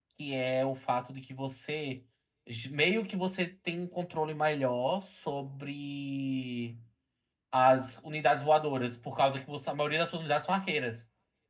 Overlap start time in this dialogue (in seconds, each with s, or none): none